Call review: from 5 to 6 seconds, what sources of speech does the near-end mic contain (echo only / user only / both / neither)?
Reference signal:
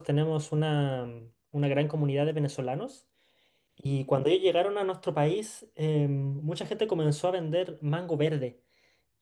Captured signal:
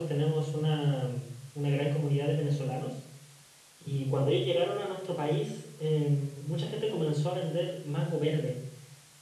echo only